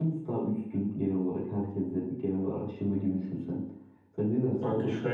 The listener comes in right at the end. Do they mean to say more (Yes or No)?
Yes